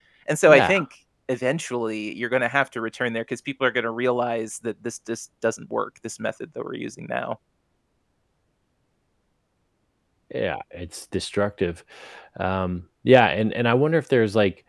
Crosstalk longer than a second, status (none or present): none